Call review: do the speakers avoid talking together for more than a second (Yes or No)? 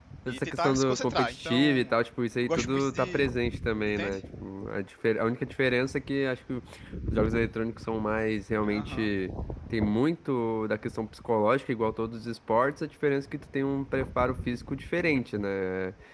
No